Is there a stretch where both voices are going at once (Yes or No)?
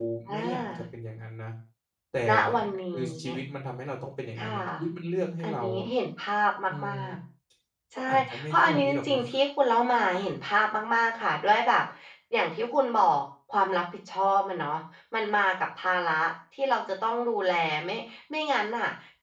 Yes